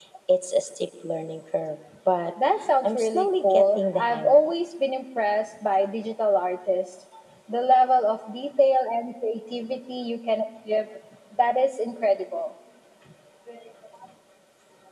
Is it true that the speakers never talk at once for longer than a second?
No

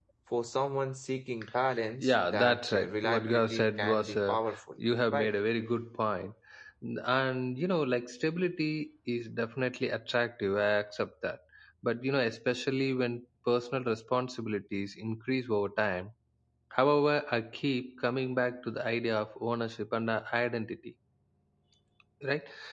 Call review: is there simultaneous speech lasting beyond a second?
Yes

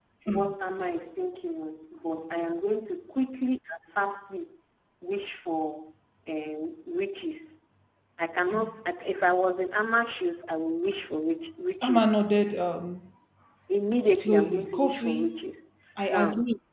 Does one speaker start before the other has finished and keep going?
Yes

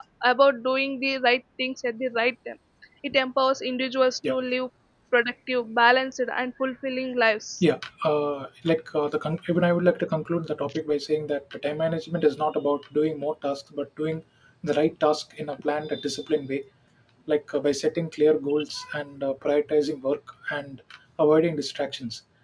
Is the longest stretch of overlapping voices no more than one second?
Yes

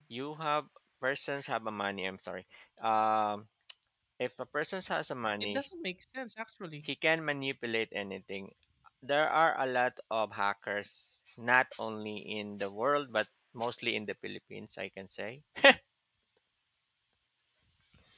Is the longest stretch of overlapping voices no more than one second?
Yes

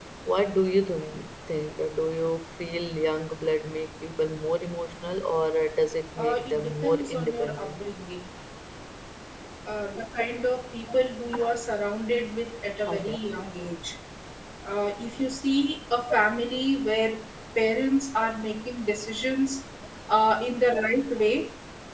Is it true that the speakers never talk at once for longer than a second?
No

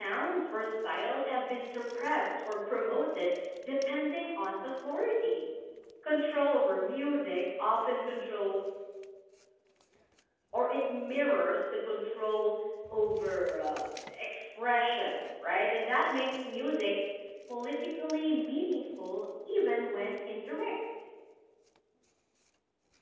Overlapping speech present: No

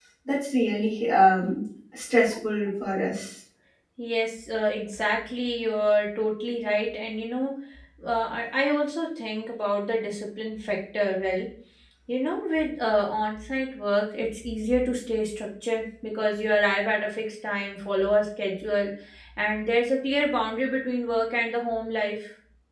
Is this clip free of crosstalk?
Yes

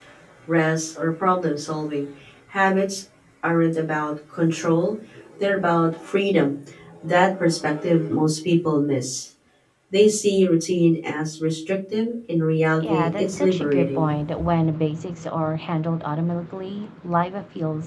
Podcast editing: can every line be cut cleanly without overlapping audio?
No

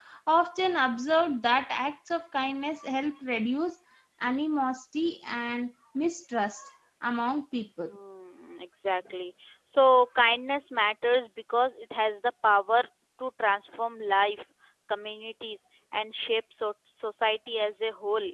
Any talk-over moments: No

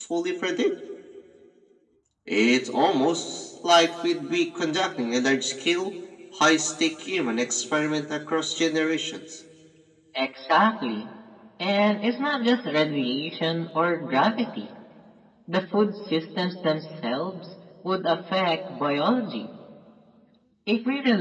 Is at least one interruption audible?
No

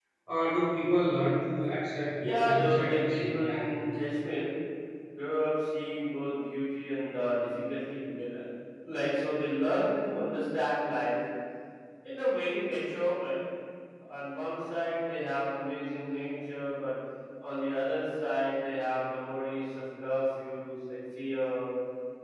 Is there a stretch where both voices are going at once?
Yes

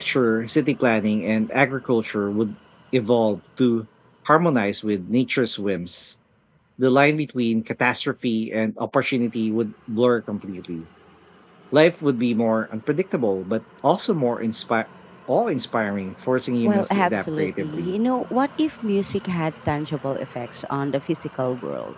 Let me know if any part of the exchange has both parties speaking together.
Yes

